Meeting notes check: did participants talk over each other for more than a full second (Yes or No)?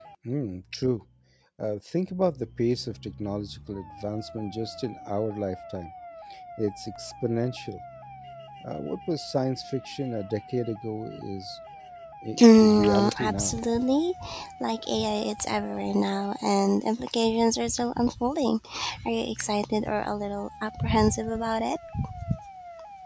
Yes